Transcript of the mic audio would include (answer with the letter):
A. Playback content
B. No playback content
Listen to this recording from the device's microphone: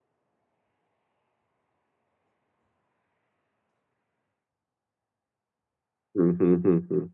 B